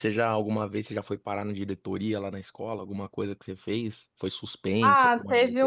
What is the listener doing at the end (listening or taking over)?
taking over